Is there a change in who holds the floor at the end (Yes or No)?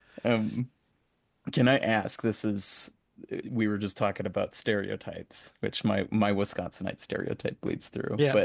No